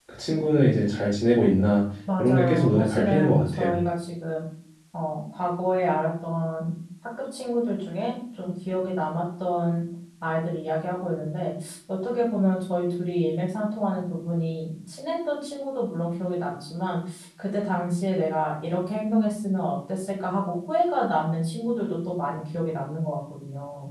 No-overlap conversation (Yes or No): No